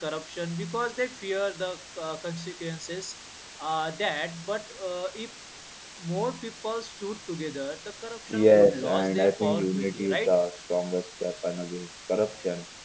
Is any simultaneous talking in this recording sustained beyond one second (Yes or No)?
Yes